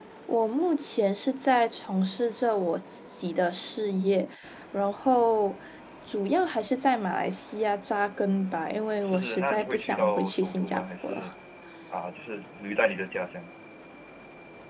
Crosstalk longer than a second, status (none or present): present